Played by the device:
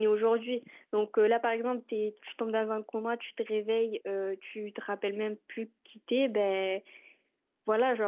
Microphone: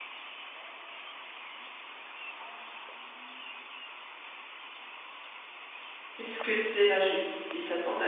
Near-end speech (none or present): present